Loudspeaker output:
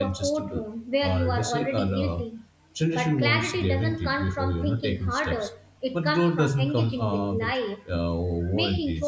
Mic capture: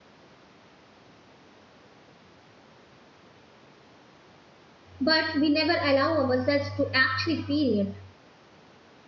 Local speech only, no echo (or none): but we never allow ourselves to actually feel it.